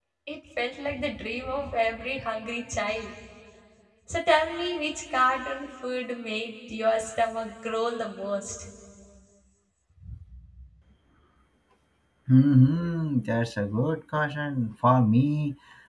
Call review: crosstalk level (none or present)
none